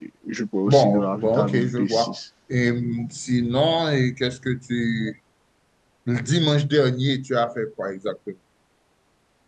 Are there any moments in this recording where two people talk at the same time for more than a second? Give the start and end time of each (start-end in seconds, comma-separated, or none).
0.7-2.2